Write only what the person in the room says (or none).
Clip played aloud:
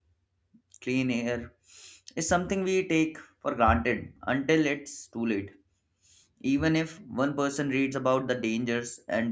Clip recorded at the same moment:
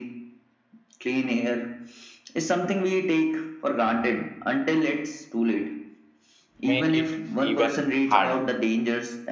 make it even harder.